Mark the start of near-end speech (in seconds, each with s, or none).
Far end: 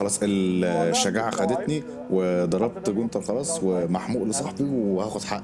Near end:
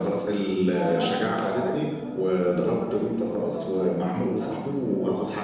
none